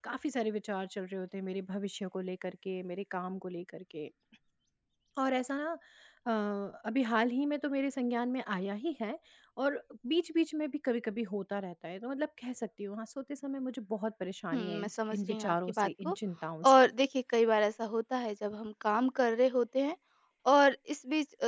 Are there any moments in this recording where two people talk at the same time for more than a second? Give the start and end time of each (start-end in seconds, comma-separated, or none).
14.5-16.1